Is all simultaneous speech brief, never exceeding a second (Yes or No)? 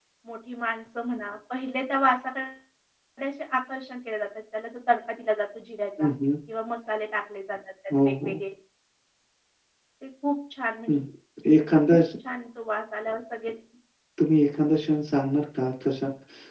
Yes